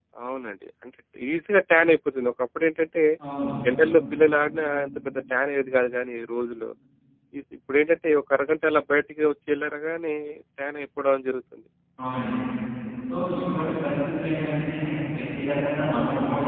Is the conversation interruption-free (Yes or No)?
Yes